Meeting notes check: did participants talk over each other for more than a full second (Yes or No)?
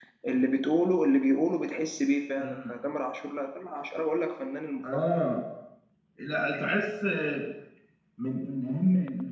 No